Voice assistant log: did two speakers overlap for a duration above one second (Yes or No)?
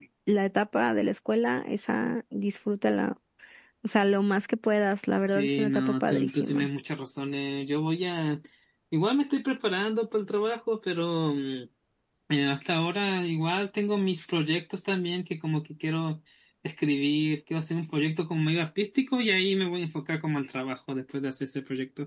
Yes